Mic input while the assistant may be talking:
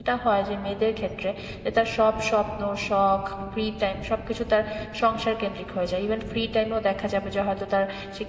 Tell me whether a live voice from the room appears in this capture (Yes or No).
Yes